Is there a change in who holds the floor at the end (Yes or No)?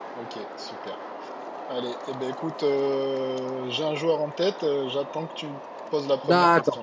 Yes